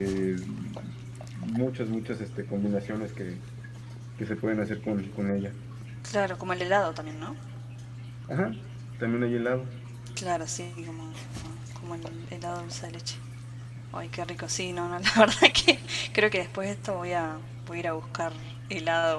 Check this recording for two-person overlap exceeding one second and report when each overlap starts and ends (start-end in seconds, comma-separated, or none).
none